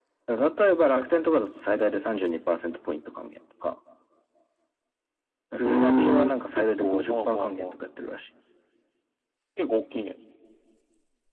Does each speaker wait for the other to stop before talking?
No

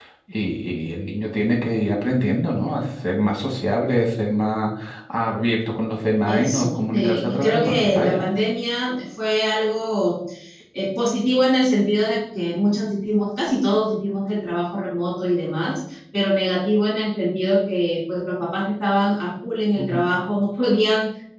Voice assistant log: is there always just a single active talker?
No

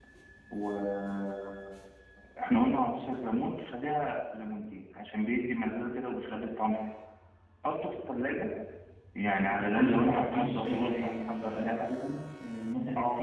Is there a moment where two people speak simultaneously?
Yes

